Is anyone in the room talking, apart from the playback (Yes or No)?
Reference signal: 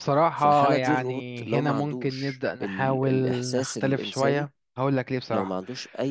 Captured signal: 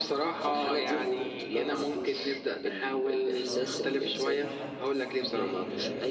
Yes